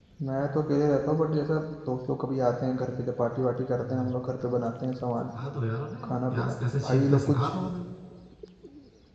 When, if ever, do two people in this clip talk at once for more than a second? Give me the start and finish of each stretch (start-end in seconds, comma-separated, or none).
6.0-7.5